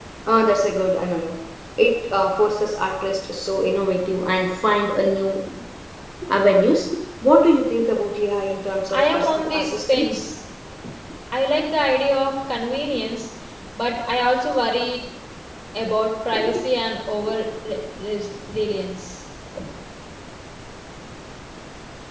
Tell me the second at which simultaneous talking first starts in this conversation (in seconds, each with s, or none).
8.9 s